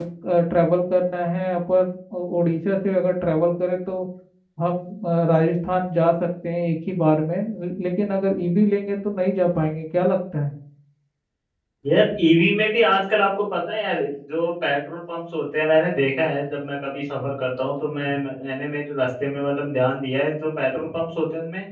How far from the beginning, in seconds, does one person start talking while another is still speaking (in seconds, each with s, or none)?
none